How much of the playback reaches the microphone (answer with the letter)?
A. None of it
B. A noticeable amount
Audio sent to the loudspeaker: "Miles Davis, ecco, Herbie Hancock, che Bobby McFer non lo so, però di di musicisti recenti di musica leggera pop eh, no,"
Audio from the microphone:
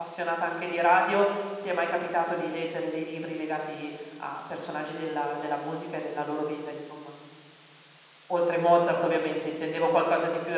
A